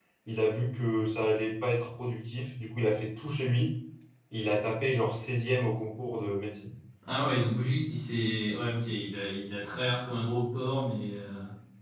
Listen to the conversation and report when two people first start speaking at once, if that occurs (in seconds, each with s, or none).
none